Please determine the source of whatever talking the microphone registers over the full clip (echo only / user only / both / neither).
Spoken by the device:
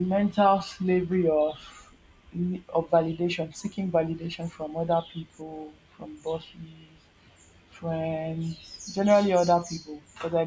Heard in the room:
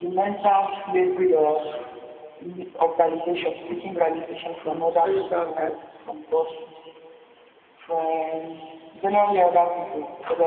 both